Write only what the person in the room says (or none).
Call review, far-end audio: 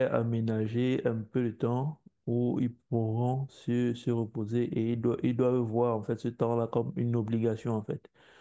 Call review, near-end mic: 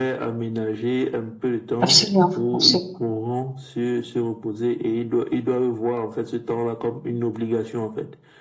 Absolument, absolument.